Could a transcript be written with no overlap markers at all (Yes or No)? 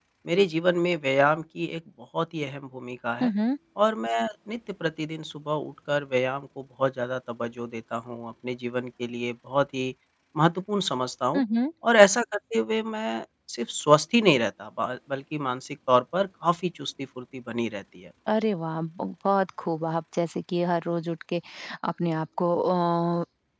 Yes